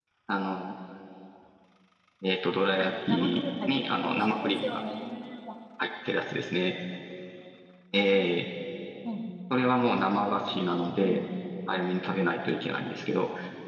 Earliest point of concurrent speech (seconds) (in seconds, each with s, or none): 2.8 s